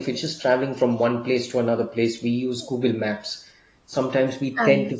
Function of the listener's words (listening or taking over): listening